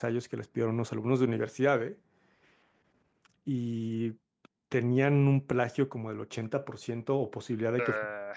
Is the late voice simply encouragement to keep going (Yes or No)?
Yes